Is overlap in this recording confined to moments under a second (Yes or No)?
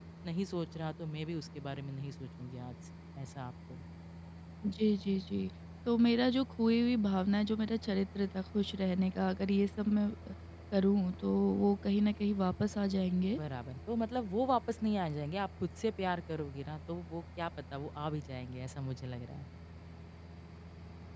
Yes